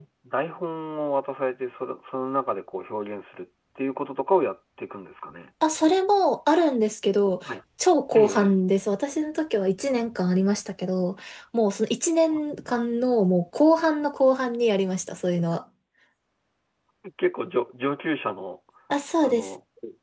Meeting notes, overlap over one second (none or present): none